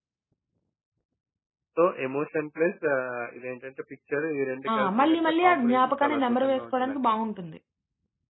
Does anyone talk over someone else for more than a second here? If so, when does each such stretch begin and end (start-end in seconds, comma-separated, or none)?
4.8-7.0